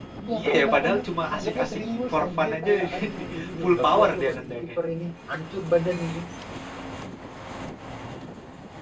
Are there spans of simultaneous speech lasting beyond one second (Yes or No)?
Yes